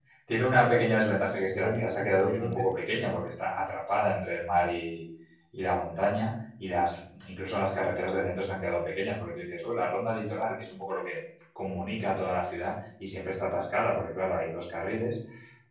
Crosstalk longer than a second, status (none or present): present